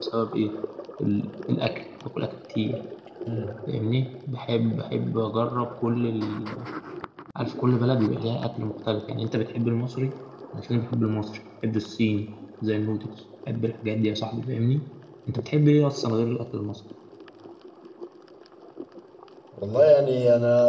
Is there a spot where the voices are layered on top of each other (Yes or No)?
No